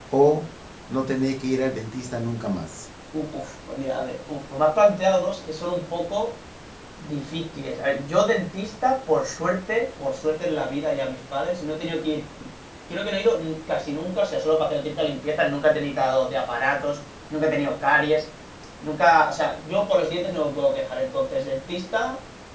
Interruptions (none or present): none